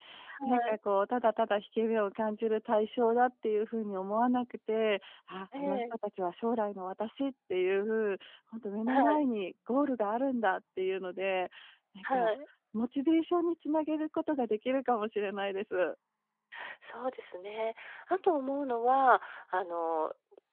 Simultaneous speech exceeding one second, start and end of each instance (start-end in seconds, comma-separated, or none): none